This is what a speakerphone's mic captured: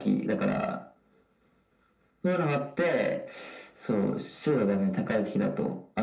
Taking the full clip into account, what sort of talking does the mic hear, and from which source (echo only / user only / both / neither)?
echo only